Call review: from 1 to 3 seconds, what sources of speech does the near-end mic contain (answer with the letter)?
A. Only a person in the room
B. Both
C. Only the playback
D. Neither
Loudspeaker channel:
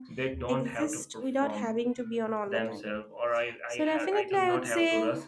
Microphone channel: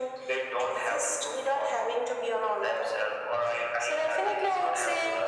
C